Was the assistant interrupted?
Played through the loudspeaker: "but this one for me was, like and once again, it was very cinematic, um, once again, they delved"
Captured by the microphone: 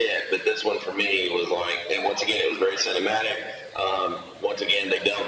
No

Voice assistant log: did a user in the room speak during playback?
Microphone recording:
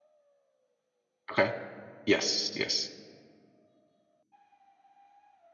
Yes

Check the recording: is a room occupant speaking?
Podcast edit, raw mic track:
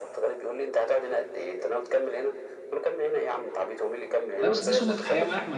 Yes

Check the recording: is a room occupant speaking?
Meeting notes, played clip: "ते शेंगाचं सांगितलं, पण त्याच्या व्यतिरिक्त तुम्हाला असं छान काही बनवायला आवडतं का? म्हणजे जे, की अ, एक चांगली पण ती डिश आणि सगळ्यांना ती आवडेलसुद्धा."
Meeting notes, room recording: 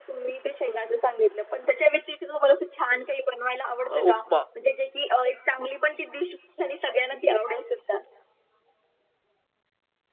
Yes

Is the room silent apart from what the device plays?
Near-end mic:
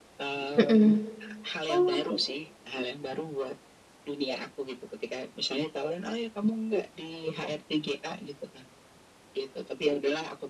No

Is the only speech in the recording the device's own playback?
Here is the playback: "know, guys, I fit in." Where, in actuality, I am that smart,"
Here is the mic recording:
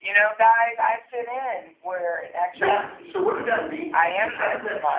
No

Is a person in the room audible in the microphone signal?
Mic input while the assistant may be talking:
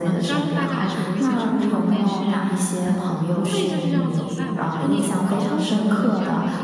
Yes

